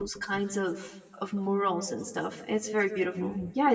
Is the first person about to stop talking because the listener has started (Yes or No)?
No